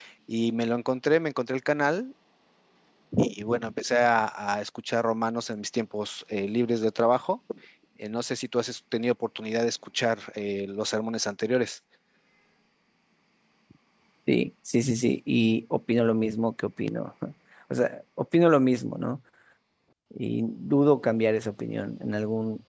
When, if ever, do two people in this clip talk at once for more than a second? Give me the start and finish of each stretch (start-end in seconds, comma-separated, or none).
none